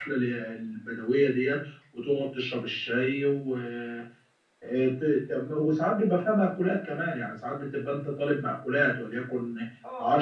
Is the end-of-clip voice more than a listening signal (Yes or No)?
Yes